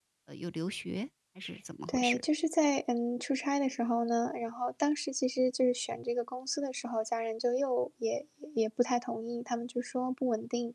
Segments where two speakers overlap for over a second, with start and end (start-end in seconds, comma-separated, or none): none